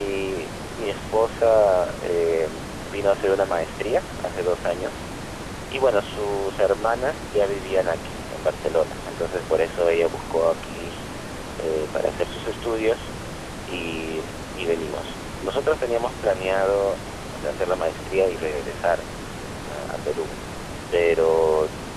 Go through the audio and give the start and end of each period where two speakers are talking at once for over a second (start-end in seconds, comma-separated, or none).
none